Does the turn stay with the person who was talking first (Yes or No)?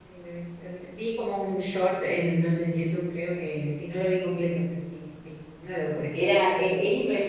No